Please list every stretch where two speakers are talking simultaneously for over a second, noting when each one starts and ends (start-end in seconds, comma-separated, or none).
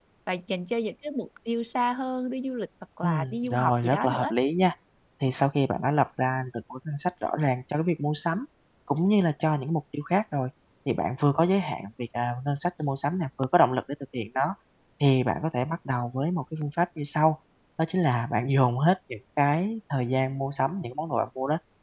3.0-4.3